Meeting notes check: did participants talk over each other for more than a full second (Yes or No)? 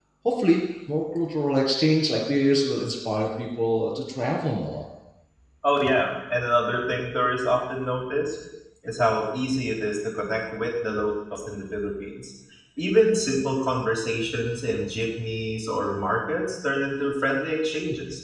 No